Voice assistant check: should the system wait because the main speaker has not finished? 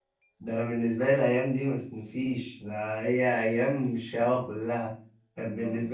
Yes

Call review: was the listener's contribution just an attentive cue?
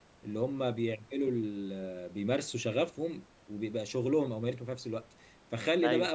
Yes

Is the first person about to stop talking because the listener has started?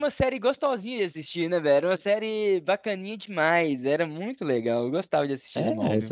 Yes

